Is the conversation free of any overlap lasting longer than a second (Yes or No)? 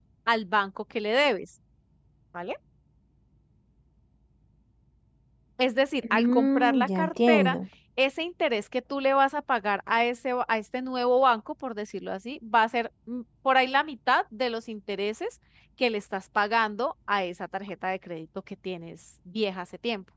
No